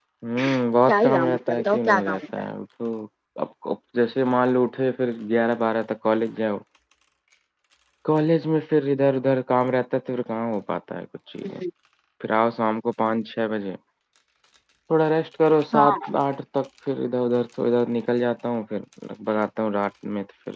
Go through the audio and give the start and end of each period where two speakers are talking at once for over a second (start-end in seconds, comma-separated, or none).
0.9-2.2